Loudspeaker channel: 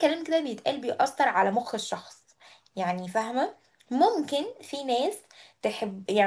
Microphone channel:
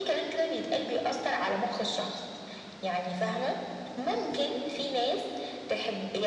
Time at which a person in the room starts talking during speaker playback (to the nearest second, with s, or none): none